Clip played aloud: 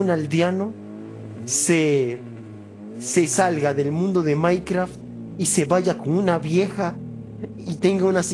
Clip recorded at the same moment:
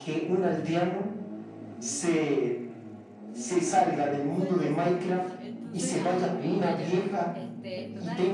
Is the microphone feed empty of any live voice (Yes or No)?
No